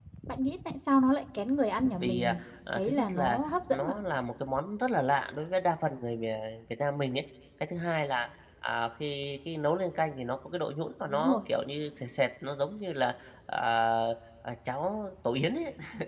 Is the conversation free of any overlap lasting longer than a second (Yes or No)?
No